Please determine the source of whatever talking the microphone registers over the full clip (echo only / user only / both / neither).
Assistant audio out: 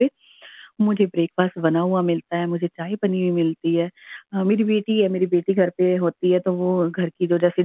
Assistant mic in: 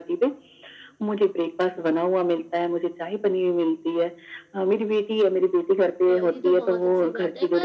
both